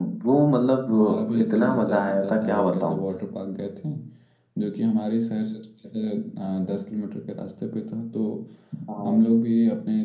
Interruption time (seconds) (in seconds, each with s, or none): 0.9 s